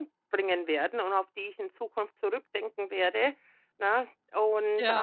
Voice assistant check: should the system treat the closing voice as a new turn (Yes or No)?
No